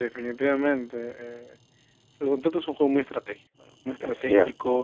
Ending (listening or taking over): listening